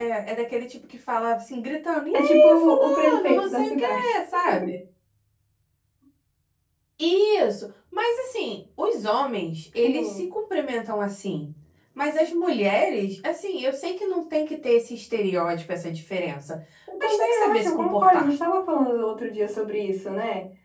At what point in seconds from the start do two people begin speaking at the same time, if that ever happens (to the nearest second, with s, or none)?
2 s